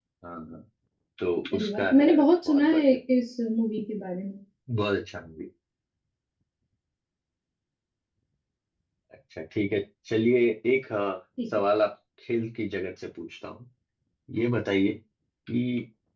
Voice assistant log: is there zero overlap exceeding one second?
No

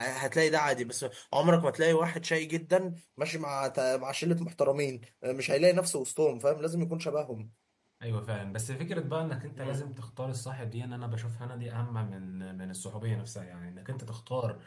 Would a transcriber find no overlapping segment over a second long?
Yes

